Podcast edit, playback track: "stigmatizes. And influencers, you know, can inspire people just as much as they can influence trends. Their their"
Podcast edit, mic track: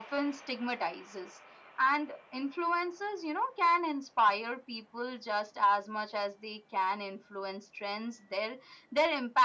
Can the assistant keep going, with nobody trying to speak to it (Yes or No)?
Yes